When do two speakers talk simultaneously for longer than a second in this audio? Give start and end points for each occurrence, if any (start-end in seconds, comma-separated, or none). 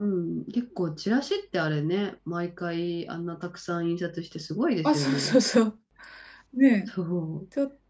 none